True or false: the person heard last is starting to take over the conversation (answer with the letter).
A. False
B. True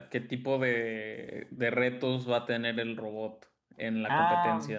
B